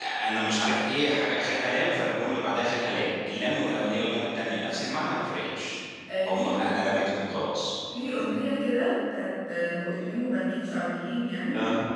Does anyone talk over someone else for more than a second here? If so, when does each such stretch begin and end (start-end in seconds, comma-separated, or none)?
none